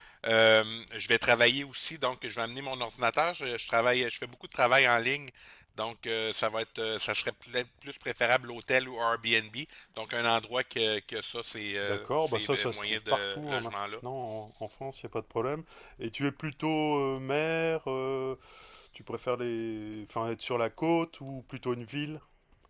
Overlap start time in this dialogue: 11.8 s

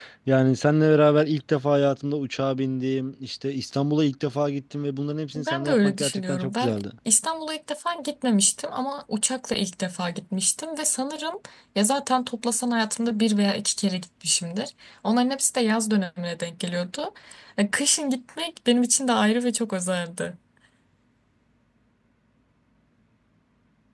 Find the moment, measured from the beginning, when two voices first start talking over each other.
5.3 s

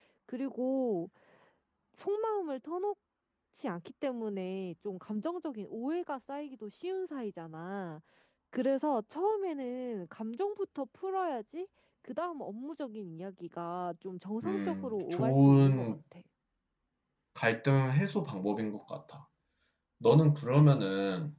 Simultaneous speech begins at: 14.4 s

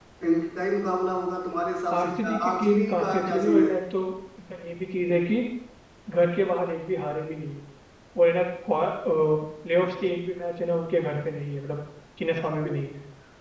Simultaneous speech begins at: 1.9 s

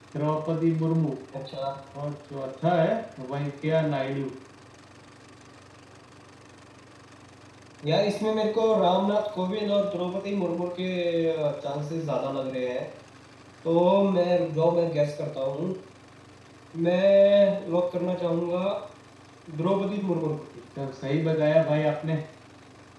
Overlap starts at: none

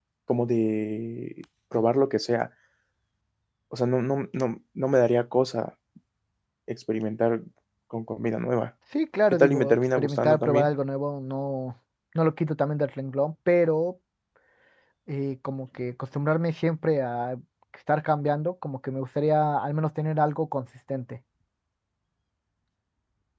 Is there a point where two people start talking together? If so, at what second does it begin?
9.3 s

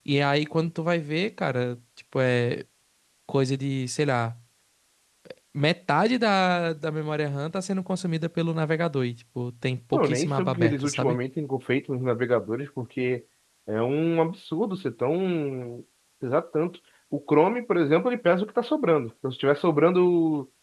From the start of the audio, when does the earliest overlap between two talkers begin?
9.9 s

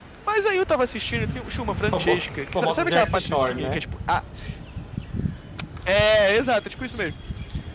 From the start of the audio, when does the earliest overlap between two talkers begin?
1.9 s

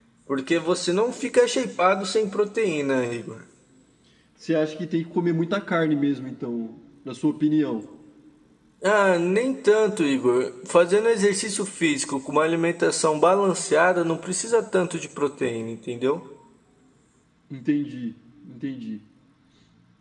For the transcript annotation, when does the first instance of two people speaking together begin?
none

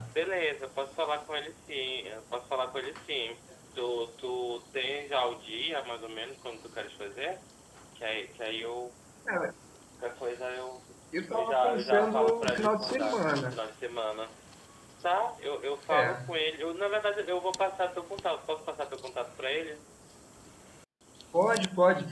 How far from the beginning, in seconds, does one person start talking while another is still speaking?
11.3 s

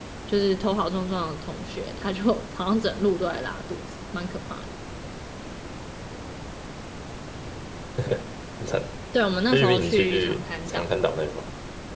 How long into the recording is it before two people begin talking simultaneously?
9.5 s

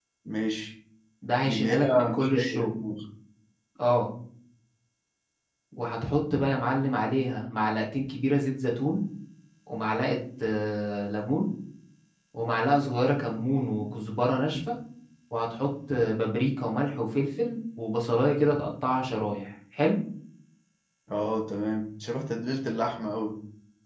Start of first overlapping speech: 1.5 s

